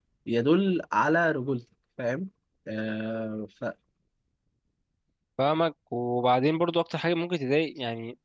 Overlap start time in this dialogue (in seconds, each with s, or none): none